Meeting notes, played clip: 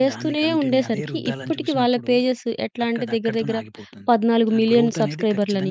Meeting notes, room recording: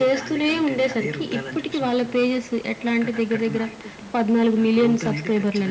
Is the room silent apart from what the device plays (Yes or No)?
Yes